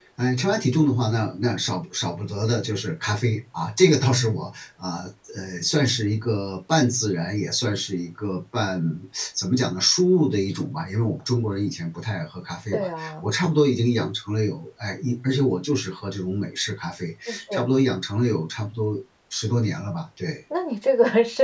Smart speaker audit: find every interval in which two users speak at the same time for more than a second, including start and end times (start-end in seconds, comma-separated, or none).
none